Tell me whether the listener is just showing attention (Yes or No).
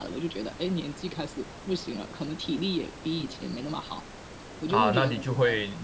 No